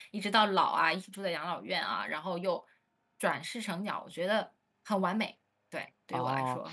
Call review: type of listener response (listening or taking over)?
taking over